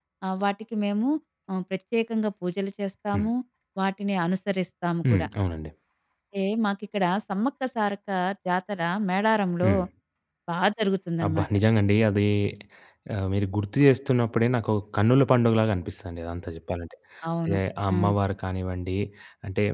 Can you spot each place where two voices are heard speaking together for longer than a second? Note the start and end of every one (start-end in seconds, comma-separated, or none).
none